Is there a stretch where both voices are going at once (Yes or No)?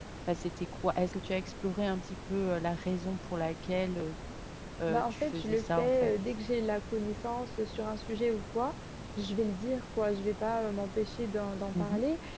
Yes